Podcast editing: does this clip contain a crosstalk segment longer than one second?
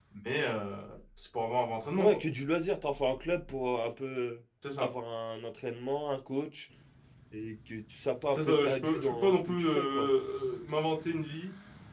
Yes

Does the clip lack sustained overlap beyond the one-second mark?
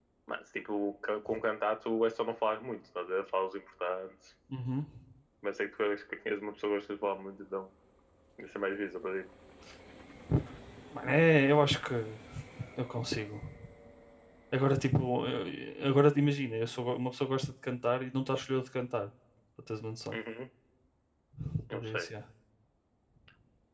Yes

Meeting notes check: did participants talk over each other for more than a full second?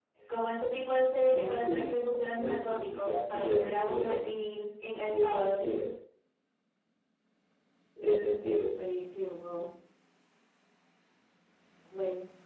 Yes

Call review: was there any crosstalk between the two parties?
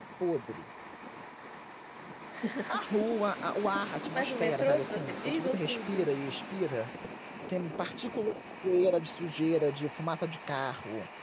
Yes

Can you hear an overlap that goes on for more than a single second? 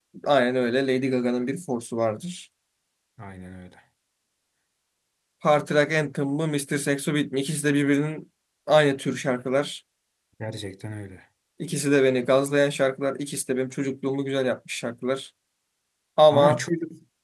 No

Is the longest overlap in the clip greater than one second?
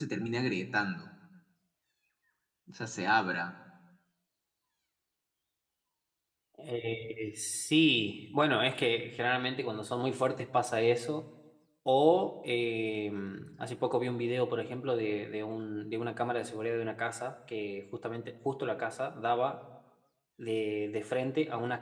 No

